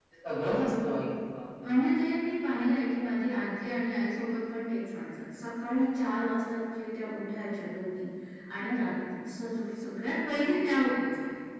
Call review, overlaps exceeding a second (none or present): none